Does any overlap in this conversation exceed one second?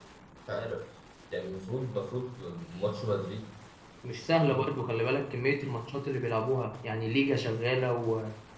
No

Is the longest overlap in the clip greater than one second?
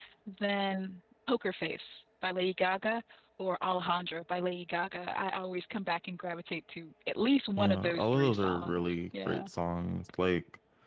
Yes, from 7.6 s

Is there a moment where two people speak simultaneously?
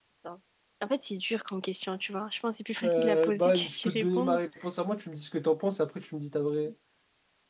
Yes, from 2.8 s

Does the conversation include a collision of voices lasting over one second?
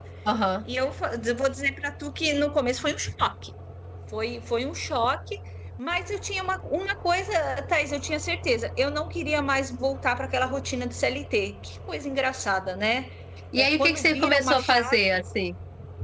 Yes, from 13.6 s

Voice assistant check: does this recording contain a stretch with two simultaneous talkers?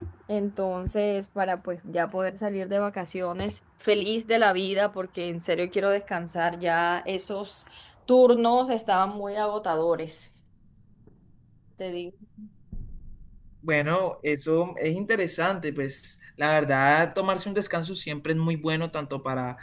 No

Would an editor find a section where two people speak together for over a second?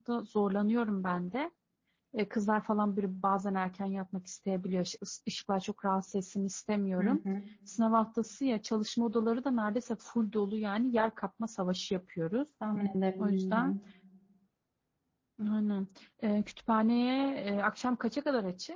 No

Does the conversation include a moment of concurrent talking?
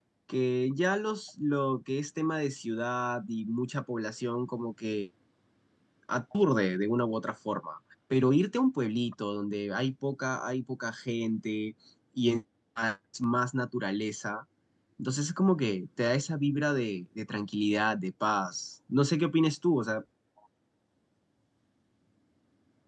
No

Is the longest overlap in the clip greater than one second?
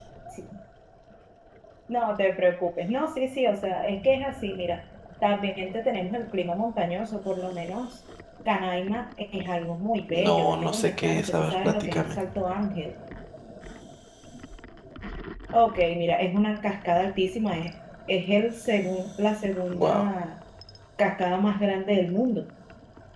Yes, from 10.1 s

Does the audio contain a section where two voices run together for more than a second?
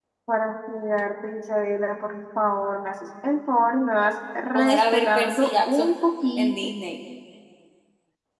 Yes, from 4.5 s

